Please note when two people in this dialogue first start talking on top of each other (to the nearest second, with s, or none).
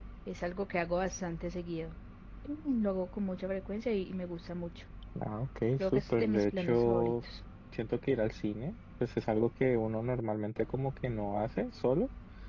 6 s